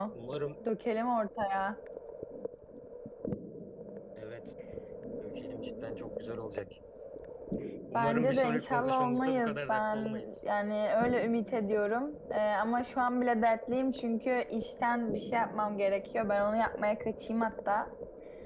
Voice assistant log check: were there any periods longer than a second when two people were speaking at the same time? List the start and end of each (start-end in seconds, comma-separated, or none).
7.9-10.3